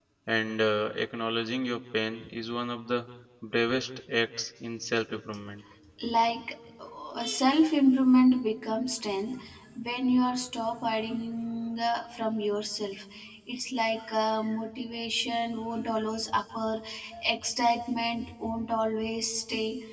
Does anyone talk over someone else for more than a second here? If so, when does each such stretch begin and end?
none

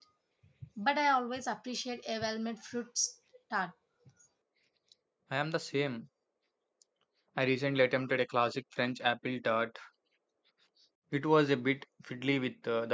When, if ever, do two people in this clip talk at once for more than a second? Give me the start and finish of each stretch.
none

